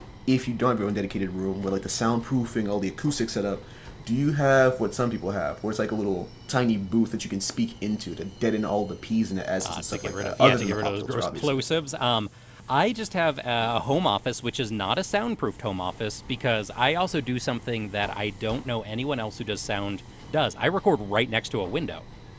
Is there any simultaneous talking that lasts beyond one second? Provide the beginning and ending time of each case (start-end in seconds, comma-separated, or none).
9.6-11.6